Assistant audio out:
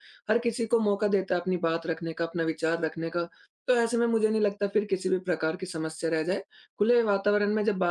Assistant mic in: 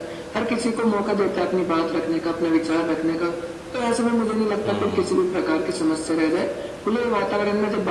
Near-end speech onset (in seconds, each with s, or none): 4.6 s